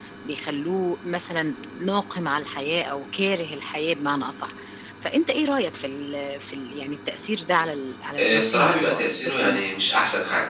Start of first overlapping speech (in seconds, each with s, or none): 8.2 s